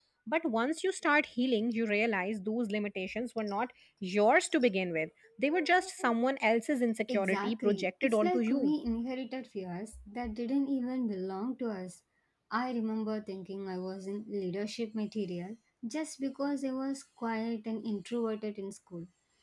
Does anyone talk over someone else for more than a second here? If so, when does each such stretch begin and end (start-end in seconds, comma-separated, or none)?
7.1-8.7